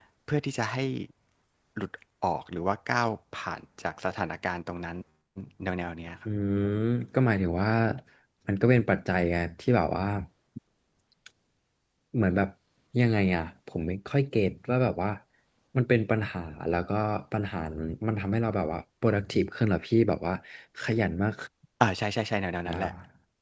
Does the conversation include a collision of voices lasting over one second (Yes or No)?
No